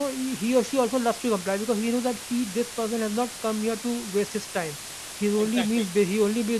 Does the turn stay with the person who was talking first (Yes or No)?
Yes